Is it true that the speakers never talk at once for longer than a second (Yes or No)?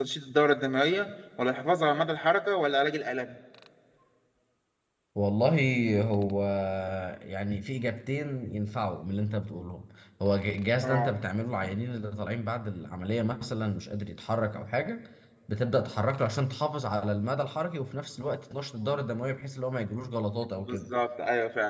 Yes